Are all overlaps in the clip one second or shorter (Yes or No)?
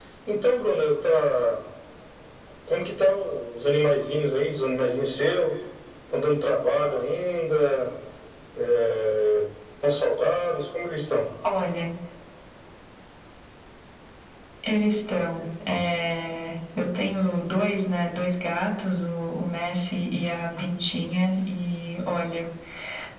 Yes